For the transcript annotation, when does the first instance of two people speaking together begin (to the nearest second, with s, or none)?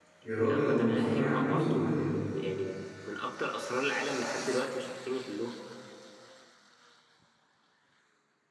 1 s